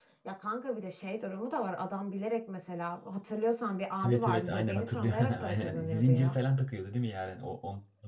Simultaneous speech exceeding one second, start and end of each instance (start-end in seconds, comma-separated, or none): 4.0-6.4